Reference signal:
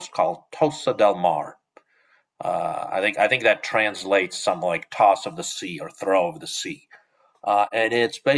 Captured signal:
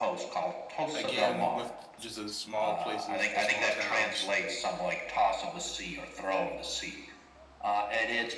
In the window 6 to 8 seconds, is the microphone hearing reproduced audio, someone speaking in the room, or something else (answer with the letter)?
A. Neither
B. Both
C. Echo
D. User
C